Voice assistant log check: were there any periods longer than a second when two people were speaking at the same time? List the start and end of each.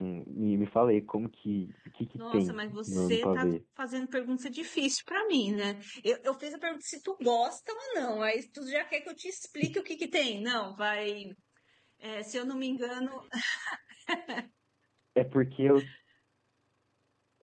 2.2-3.6

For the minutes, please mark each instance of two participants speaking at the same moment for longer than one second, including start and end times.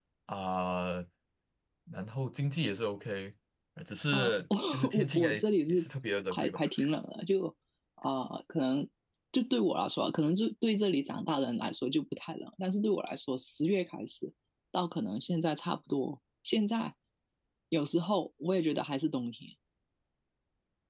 4.1-5.9

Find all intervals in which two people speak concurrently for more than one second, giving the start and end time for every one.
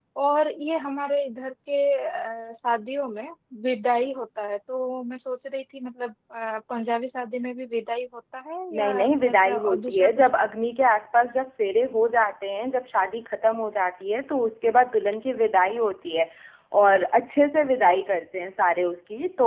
8.8-10.4

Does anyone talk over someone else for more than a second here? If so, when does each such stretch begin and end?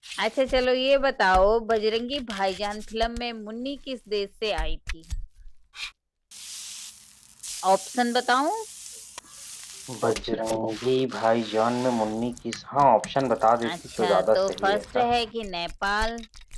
13.6-15.1

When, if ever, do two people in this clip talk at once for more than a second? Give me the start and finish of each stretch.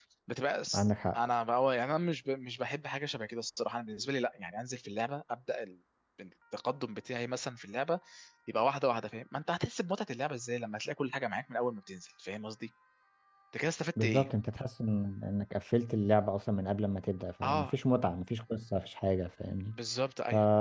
none

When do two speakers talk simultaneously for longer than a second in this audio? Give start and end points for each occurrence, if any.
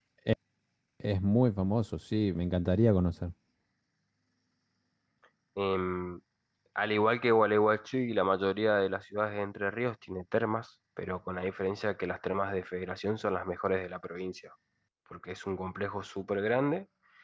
none

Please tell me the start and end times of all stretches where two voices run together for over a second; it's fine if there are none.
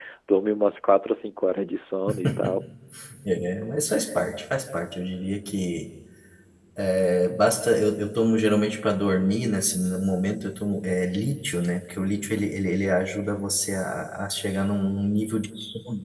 none

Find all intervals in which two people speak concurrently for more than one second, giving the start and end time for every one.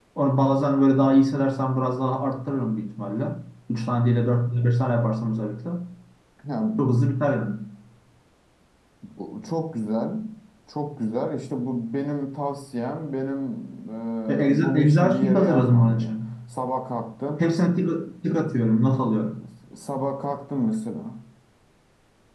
14.5-16.1

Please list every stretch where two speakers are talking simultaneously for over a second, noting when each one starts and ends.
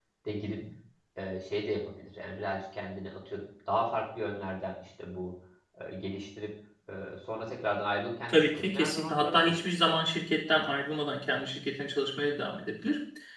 8.3-9.5

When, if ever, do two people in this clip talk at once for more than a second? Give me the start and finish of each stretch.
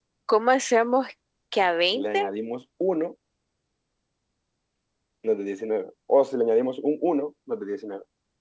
none

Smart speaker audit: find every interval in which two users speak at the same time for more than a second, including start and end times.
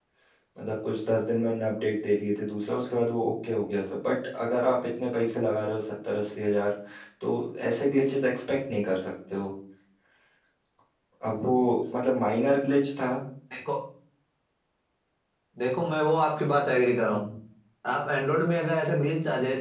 none

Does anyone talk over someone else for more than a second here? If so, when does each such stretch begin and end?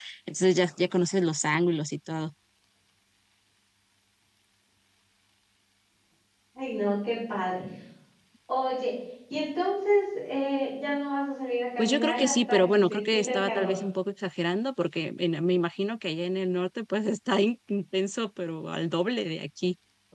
11.8-13.7

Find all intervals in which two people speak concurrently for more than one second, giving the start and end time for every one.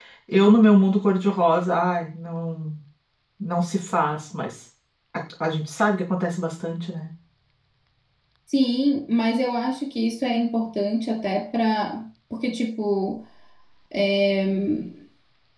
none

